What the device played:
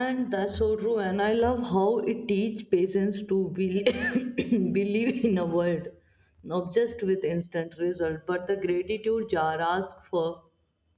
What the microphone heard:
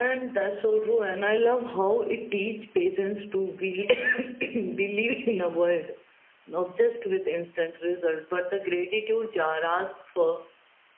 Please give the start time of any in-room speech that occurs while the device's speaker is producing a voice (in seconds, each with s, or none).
none